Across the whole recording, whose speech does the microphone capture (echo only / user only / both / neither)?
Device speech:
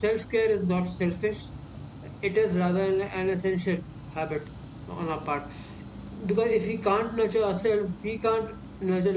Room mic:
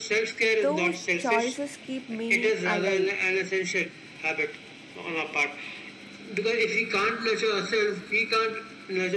both